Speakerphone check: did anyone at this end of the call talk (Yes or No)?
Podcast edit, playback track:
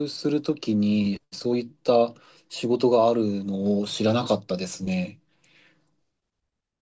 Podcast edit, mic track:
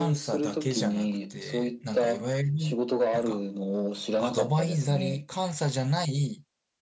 Yes